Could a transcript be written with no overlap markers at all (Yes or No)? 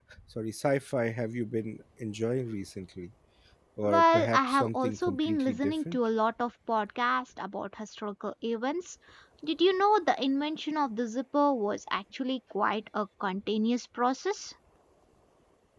No